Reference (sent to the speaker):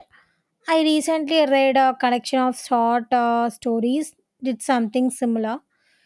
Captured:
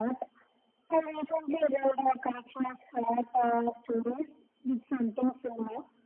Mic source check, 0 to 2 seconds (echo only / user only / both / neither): echo only